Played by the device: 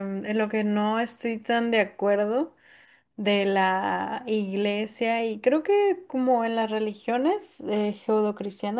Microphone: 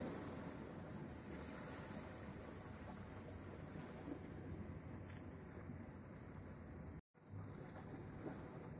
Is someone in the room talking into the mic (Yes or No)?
No